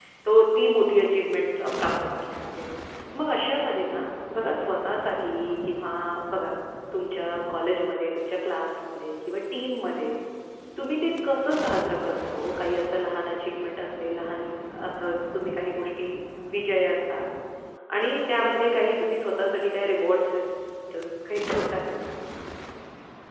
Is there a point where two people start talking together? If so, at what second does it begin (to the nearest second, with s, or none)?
none